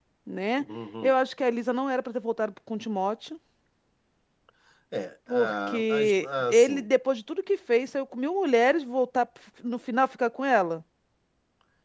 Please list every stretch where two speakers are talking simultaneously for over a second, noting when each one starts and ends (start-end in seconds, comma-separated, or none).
5.3-6.9